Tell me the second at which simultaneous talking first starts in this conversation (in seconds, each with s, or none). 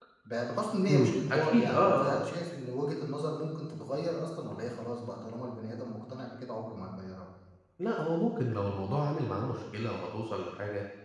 0.8 s